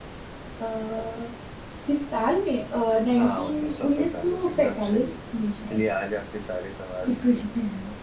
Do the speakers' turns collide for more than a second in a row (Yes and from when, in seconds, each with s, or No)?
Yes, from 3.2 s